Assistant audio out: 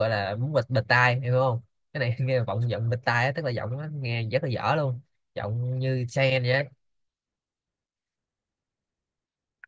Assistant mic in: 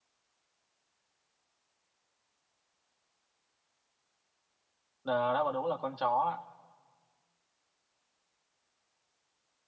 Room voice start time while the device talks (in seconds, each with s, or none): 5.0 s